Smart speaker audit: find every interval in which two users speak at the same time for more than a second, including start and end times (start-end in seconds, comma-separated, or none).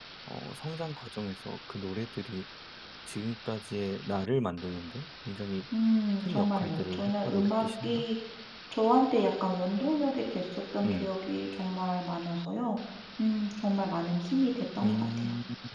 6.2-8.1